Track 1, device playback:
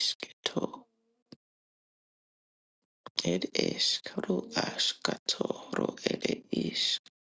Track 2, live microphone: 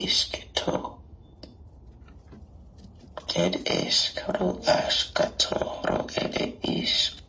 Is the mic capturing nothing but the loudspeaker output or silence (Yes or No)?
Yes